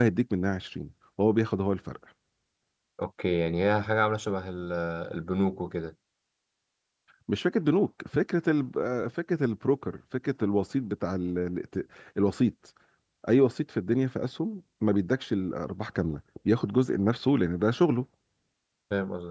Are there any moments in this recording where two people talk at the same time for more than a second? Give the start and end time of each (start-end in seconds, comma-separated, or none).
none